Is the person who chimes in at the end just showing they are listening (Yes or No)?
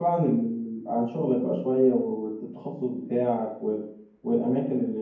Yes